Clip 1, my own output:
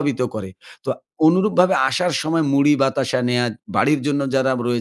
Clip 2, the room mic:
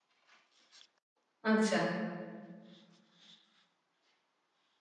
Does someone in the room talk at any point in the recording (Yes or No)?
Yes